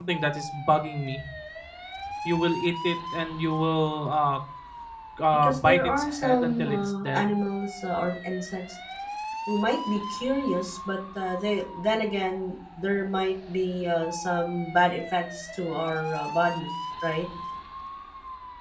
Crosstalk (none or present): present